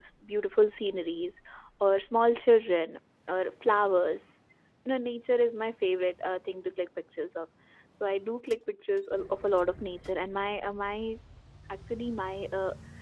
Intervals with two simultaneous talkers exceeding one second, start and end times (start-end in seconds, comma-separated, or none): none